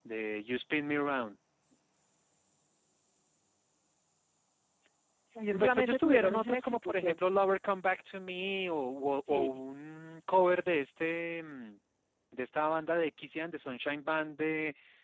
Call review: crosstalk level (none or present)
present